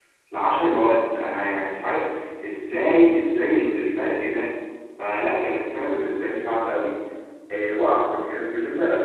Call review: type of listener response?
listening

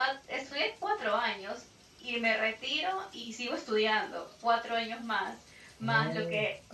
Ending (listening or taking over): listening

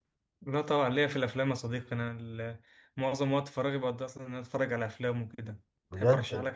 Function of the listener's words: taking over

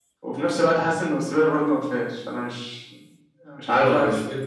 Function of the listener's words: taking over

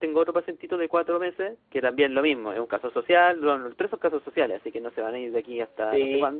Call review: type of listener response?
taking over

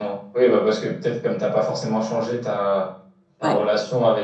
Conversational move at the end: listening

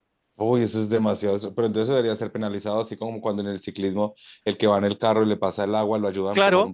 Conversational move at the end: taking over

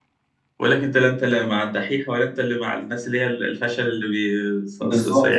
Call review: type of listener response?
taking over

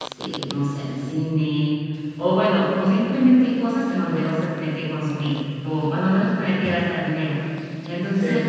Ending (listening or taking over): listening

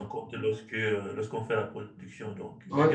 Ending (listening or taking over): listening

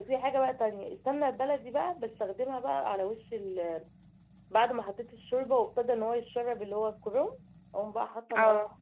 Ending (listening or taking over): listening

